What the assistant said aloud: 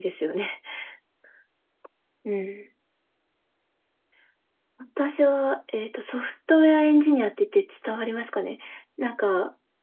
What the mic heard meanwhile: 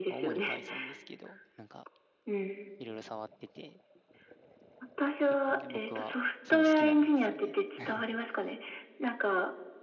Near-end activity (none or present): present